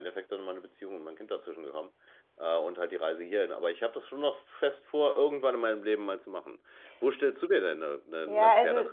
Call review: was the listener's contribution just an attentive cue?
No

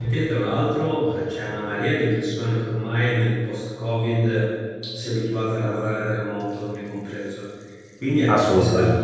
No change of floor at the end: Yes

